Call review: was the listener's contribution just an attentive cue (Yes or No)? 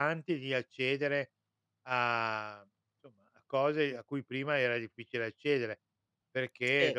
Yes